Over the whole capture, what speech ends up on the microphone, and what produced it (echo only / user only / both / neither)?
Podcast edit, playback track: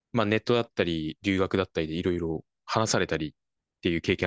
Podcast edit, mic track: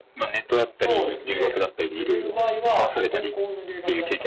both